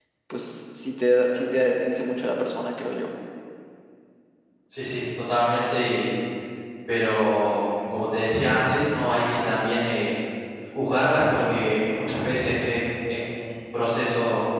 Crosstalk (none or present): none